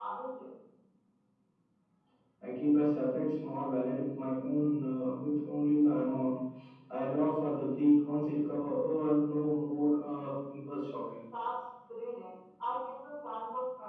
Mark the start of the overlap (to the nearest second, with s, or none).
none